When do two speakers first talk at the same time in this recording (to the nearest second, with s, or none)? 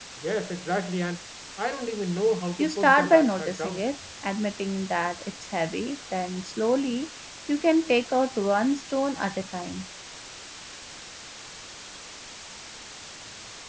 3 s